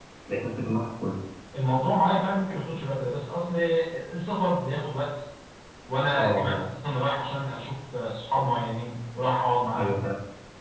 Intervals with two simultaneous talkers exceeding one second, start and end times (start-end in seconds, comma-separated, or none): none